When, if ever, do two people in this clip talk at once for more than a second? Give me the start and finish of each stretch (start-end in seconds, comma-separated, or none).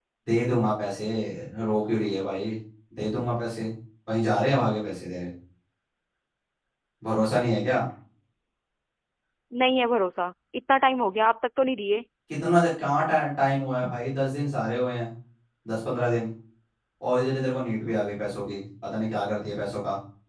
none